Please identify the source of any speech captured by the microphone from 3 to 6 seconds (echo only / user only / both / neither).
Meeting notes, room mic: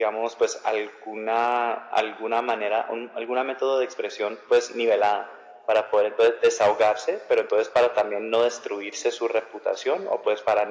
echo only